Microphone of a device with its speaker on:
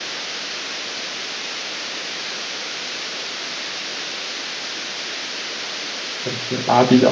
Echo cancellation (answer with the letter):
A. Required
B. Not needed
B